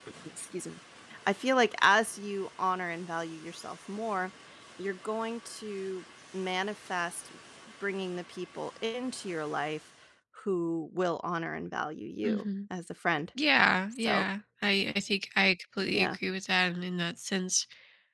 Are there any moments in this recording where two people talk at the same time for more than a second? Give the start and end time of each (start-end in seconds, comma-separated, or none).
none